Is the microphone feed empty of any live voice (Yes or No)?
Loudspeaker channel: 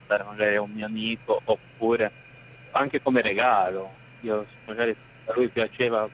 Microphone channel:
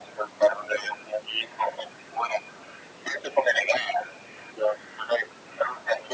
Yes